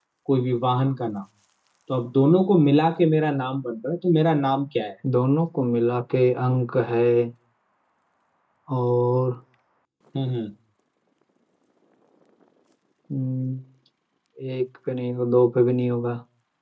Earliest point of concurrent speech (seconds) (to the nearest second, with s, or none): none